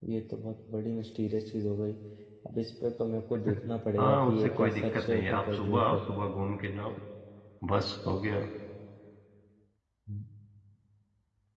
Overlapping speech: Yes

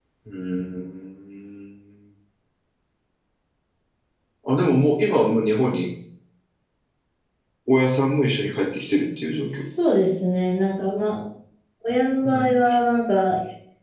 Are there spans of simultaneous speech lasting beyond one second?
No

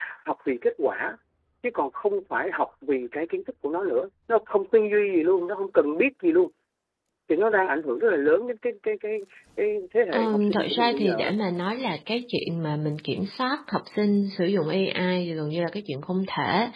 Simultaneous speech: Yes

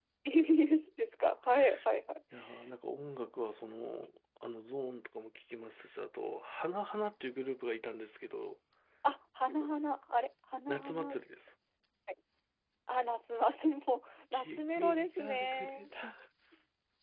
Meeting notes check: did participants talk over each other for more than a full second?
Yes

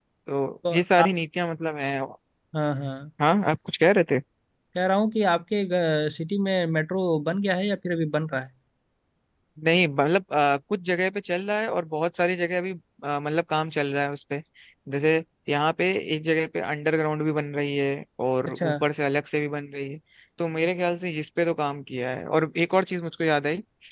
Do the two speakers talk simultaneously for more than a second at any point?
No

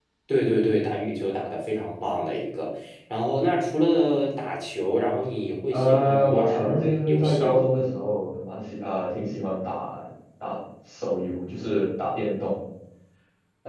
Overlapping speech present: Yes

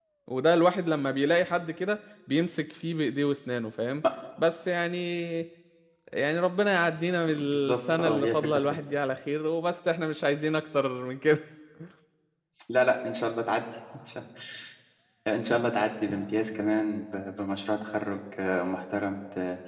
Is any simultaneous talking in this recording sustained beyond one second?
Yes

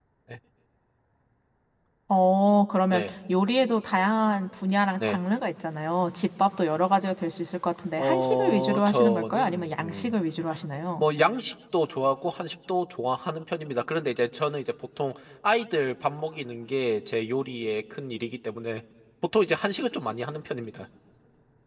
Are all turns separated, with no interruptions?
No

